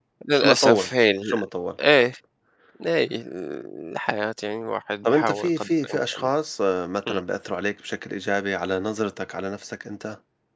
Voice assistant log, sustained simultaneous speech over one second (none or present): present